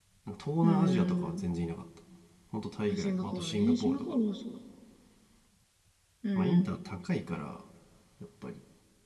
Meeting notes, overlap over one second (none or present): present